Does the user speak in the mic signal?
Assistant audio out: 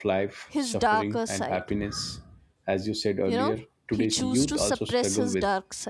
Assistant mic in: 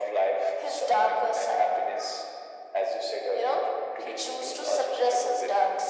No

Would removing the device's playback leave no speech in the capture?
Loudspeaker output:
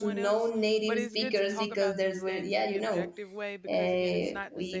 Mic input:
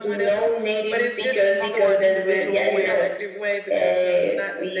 No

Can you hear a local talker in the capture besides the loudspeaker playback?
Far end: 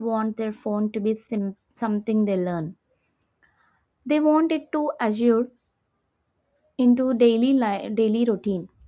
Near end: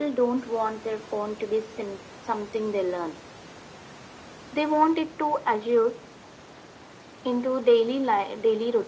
No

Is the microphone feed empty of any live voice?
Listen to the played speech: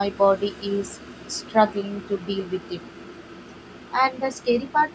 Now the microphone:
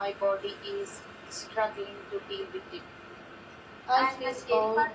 No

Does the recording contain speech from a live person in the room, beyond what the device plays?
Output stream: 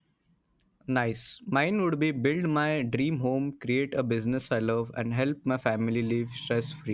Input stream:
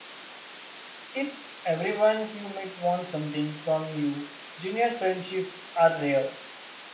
Yes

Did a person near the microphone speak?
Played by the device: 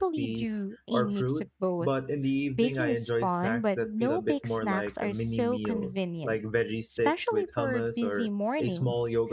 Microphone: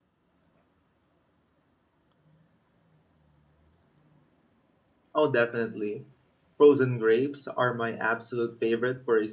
Yes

